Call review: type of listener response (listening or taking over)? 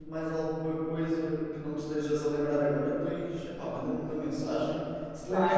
listening